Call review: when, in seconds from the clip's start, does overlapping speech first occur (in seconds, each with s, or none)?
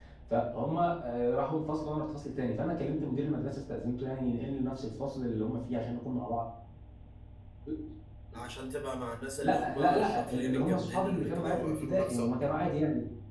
9.4 s